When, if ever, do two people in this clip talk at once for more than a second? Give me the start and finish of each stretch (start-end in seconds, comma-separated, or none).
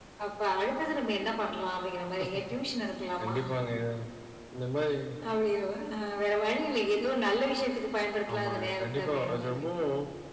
8.3-9.7